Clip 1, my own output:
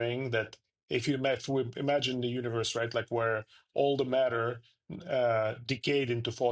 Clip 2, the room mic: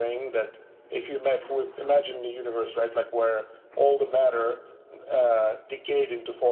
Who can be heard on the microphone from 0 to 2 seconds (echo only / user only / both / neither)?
echo only